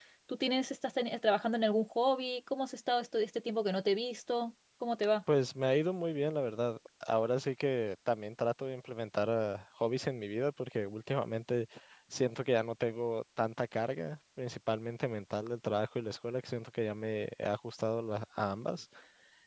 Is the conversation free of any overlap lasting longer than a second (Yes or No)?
Yes